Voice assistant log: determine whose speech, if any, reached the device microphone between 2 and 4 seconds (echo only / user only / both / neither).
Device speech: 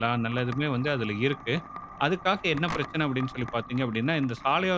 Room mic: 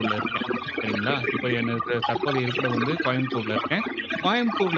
both